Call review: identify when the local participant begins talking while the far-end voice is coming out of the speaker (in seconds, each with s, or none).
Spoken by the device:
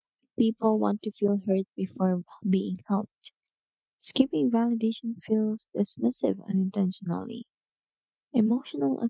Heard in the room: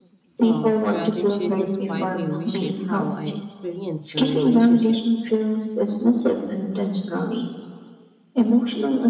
0.4 s